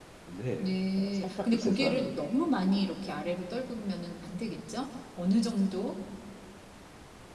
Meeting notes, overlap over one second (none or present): present